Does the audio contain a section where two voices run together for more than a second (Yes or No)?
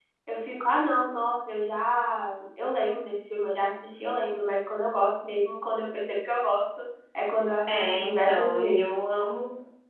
Yes